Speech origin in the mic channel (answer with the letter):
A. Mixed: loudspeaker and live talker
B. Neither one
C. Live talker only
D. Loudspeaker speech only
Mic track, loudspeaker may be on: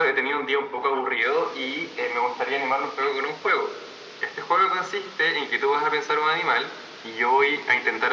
D